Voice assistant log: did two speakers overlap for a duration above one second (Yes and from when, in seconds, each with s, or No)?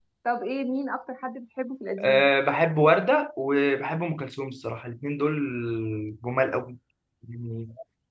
No